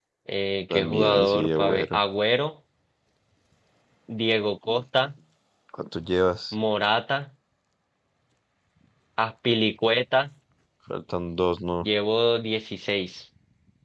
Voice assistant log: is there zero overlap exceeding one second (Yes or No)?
No